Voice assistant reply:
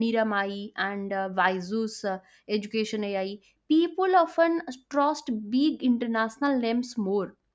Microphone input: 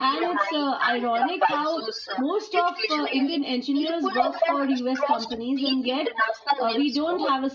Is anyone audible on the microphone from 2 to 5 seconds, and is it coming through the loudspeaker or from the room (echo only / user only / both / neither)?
both